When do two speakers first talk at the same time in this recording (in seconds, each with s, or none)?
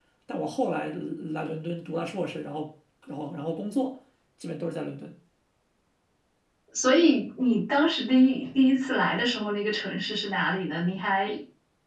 none